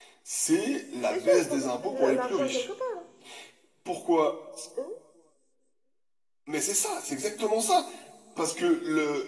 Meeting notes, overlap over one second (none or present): present